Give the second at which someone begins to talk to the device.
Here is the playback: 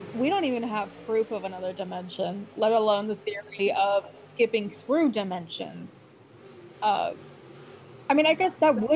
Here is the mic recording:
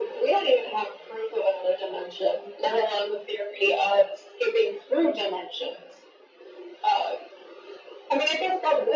none

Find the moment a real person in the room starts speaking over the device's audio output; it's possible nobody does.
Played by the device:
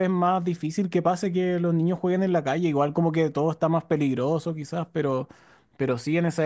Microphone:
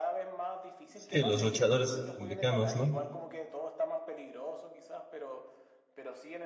1.0 s

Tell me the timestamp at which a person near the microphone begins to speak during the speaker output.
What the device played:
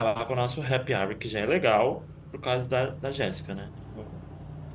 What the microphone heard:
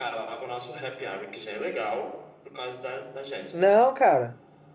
3.5 s

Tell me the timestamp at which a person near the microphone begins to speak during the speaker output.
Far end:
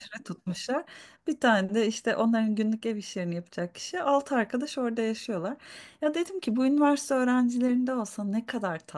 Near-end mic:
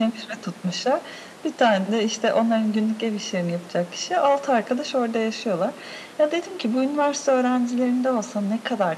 none

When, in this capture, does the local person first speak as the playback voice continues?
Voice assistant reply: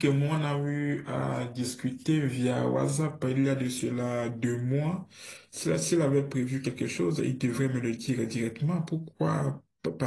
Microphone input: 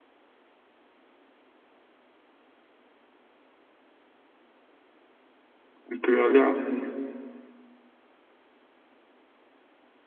5.9 s

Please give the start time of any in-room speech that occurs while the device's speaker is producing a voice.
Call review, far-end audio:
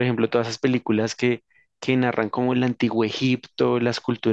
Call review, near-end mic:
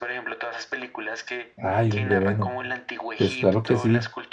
1.6 s

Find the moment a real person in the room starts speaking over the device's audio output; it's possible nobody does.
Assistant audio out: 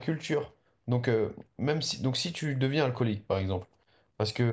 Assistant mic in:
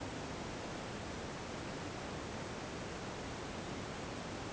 none

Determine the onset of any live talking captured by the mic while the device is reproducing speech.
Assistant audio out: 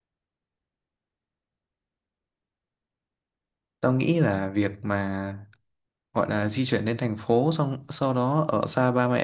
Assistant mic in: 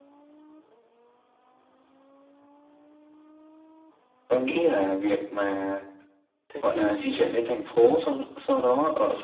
6.5 s

